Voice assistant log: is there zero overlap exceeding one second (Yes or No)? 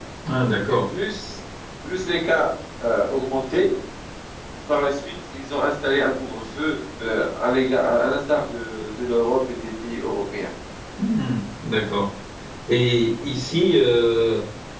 Yes